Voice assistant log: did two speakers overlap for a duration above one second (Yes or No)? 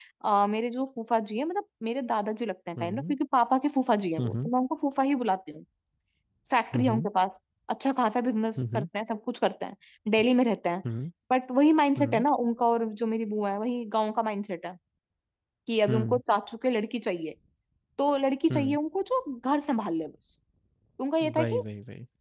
No